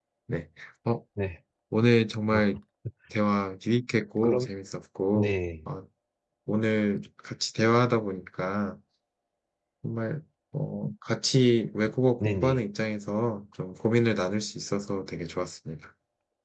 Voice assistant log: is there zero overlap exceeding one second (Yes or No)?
Yes